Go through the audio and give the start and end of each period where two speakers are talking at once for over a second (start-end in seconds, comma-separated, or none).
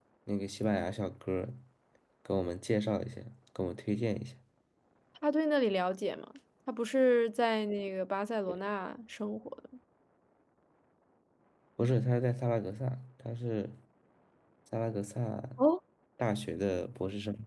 none